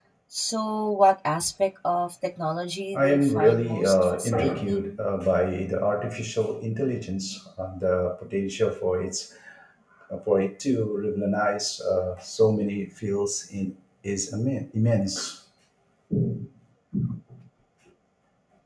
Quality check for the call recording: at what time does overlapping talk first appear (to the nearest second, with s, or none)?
3 s